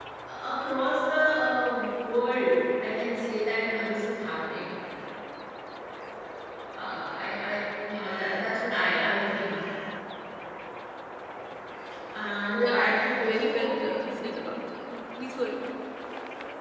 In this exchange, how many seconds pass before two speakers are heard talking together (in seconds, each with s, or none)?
12.5 s